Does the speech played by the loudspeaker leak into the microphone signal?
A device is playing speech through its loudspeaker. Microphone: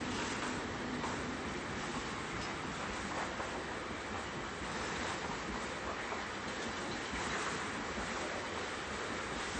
No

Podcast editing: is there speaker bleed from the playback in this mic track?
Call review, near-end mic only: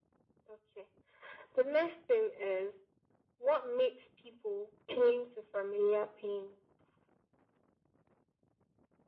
Yes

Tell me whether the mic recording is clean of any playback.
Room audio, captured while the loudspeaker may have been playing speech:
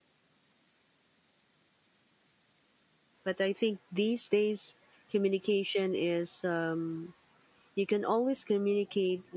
Yes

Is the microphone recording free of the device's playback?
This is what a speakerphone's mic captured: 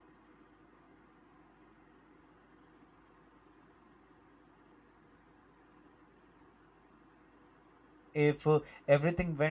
Yes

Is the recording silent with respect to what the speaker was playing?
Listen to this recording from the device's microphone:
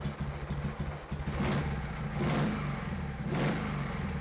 Yes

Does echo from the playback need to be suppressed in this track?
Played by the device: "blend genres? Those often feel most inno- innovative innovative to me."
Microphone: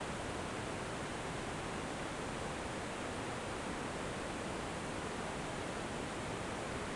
No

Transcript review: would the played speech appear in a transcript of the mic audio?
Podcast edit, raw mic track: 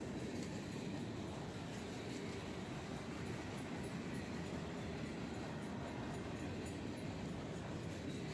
No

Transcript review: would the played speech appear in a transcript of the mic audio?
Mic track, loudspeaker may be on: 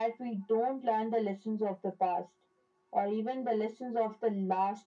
Yes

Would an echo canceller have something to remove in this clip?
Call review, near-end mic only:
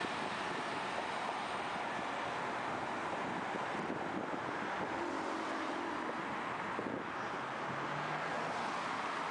No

